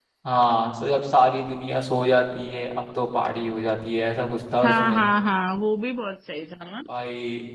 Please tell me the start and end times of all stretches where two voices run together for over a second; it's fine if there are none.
none

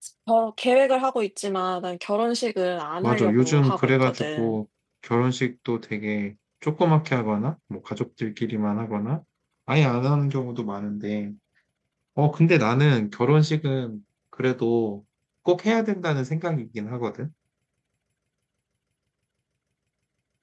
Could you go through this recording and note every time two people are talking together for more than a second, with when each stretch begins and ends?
3.0-4.6

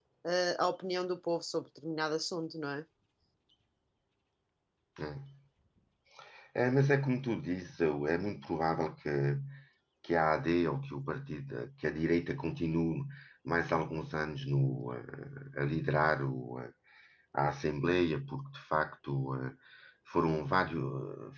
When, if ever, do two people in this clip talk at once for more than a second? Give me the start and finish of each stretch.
none

